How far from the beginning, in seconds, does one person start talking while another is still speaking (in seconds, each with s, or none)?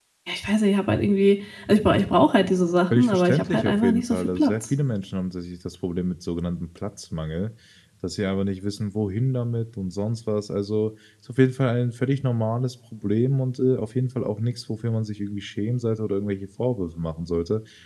2.9 s